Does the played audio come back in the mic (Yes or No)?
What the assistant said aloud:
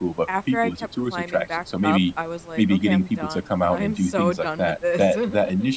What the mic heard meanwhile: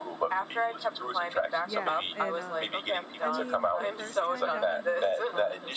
Yes